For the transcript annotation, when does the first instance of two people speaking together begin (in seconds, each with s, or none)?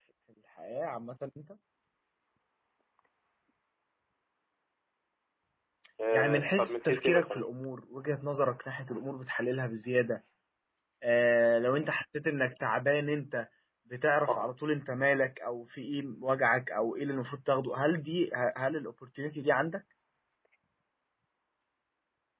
6.1 s